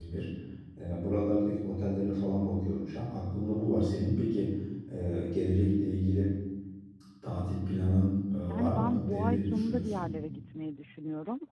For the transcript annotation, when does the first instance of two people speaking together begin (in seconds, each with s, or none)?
8.5 s